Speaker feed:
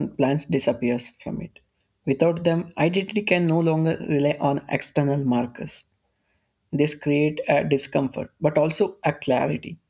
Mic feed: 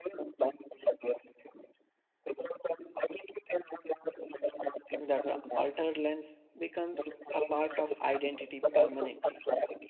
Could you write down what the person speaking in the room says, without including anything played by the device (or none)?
That altered lens becomes a part of identity permanently.